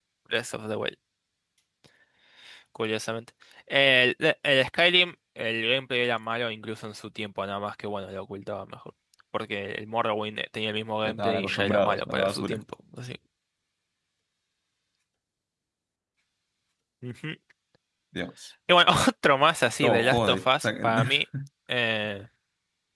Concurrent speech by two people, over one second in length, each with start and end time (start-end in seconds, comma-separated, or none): 11.0-12.6, 19.8-21.1